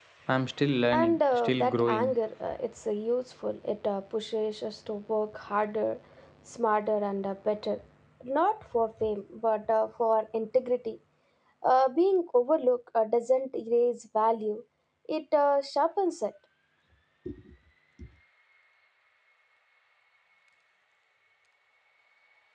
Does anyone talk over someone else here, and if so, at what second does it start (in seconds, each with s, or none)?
0.9 s